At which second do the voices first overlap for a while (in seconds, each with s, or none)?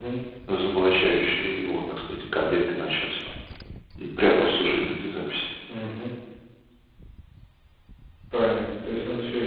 none